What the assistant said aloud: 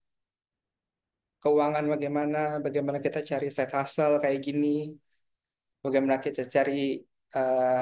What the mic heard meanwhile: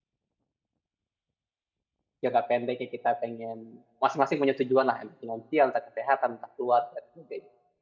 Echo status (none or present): none